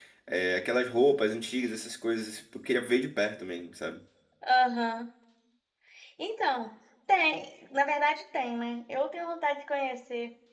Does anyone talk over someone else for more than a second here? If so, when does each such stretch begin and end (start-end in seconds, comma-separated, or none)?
none